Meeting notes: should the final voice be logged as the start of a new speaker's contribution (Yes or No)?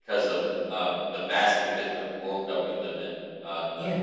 No